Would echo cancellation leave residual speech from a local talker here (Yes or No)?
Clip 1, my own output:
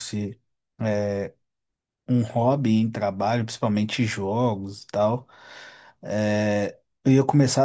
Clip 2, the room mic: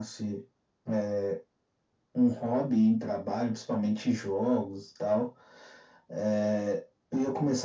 No